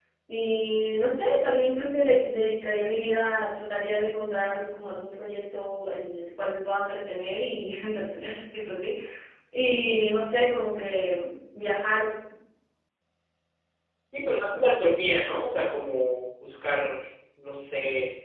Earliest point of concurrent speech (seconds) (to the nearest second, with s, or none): none